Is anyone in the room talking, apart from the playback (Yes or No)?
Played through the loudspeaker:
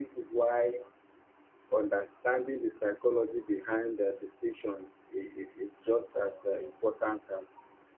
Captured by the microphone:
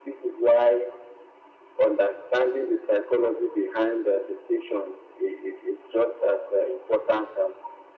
No